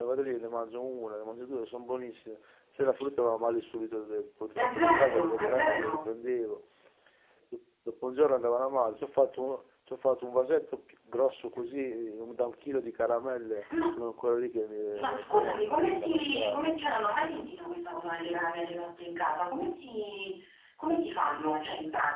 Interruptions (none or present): present